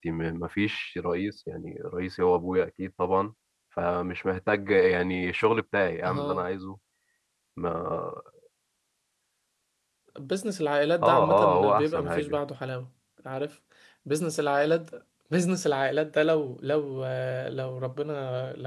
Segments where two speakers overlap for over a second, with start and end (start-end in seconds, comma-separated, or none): 11.0-12.4